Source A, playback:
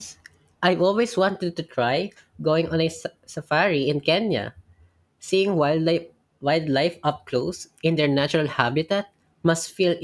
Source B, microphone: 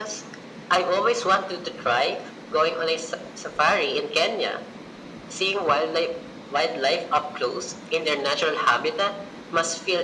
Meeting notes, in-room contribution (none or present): none